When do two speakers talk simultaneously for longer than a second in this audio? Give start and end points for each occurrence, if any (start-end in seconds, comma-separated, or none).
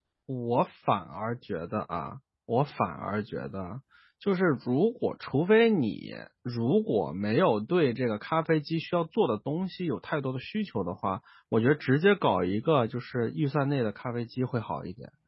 none